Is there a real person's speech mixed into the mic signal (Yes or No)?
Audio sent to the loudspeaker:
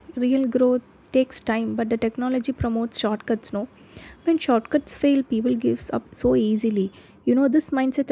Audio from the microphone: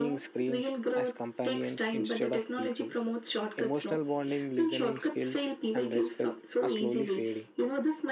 Yes